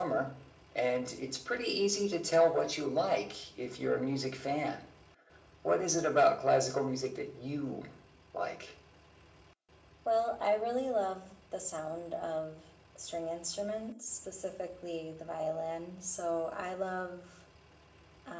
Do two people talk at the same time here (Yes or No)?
No